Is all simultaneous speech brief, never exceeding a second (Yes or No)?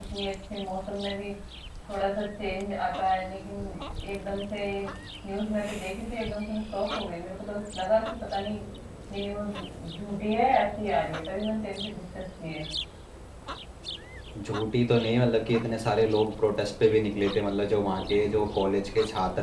Yes